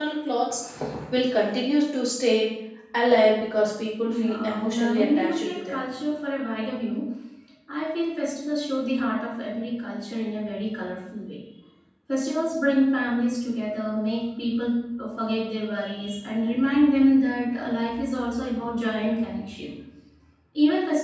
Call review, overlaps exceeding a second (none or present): present